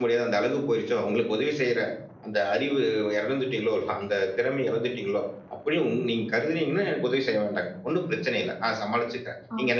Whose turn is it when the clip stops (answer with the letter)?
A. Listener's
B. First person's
B